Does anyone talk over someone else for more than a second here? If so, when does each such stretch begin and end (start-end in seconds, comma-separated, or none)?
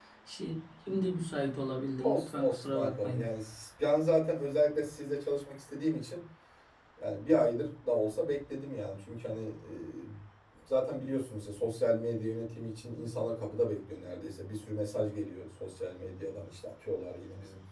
2.0-3.2